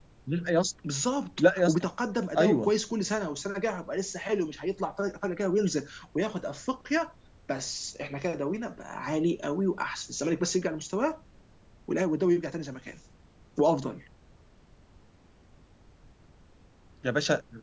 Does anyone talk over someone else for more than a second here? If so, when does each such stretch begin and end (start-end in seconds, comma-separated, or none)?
none